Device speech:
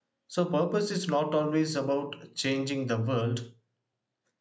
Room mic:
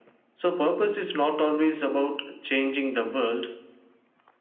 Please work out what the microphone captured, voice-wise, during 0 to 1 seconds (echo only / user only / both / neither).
echo only